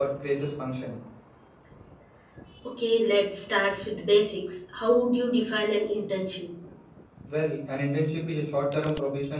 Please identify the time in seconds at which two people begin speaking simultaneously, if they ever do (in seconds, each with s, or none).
none